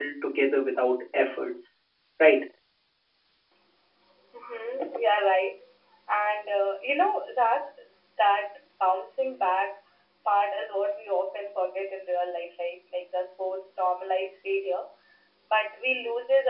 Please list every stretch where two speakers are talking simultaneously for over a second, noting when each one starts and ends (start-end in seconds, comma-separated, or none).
none